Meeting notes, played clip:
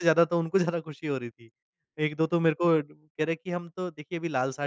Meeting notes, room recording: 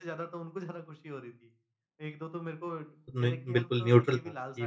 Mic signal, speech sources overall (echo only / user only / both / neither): both